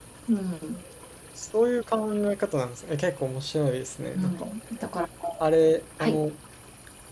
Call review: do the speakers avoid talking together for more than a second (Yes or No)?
Yes